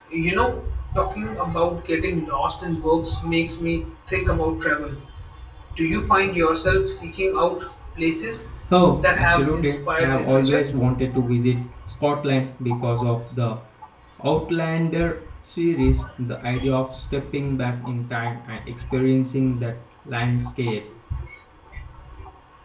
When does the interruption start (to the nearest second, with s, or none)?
9 s